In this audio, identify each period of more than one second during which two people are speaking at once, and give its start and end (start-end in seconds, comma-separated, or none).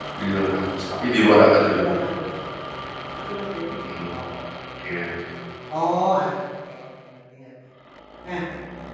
none